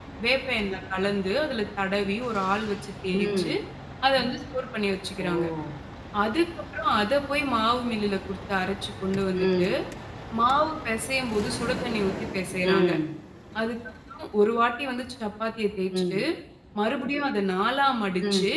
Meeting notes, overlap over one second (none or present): none